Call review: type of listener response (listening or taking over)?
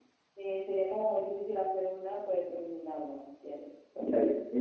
taking over